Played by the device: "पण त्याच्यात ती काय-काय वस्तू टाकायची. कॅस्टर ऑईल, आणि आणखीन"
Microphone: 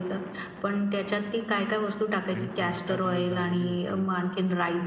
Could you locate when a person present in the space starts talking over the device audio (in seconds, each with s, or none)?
2.3 s